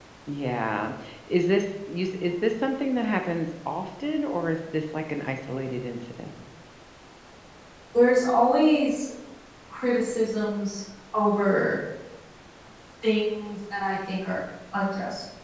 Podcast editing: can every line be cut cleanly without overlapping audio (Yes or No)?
Yes